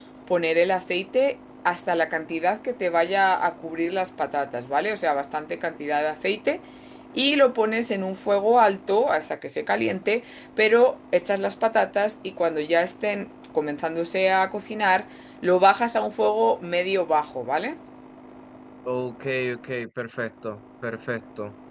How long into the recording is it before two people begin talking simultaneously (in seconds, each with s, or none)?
none